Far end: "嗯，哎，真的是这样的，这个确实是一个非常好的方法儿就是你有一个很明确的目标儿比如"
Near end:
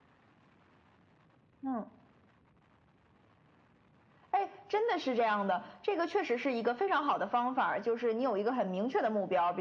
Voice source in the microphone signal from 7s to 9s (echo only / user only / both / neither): echo only